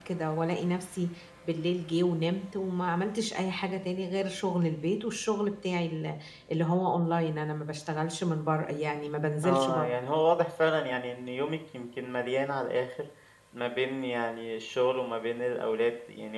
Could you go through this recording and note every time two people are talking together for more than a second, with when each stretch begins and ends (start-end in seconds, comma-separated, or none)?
none